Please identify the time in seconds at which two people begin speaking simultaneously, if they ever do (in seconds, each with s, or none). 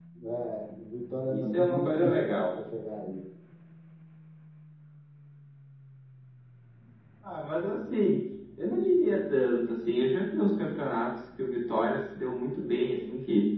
1.2 s